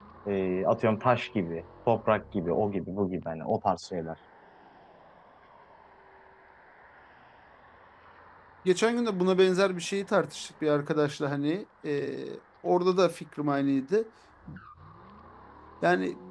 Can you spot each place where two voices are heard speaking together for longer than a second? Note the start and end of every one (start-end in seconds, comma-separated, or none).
none